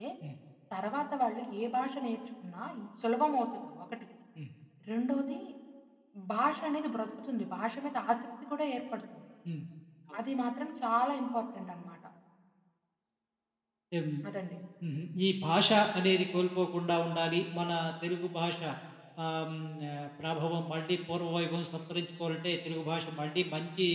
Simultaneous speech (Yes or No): No